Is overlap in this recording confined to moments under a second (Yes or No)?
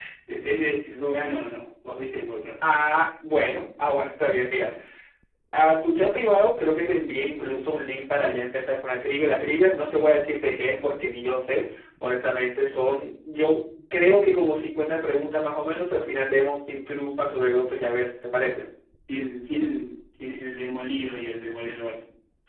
Yes